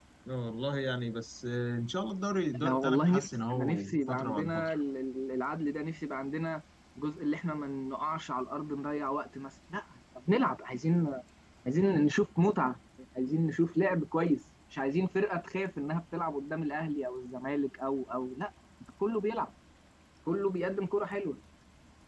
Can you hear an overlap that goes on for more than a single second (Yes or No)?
Yes